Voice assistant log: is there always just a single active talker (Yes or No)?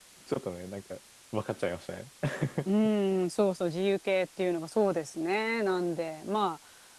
Yes